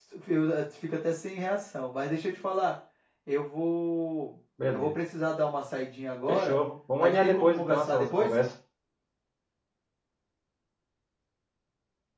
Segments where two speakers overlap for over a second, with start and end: 7.0-8.3

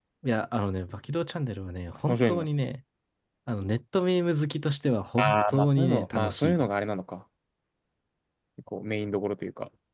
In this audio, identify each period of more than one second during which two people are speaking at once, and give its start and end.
5.2-6.7

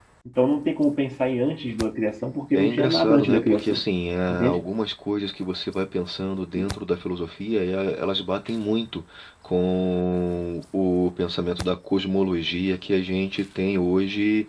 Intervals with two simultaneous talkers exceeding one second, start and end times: 2.6-3.8

